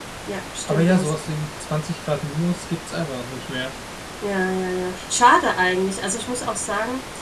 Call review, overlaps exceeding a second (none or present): none